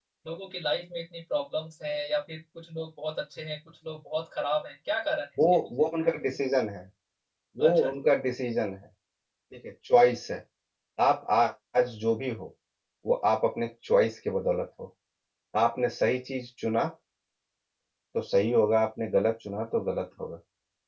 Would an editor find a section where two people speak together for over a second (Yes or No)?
No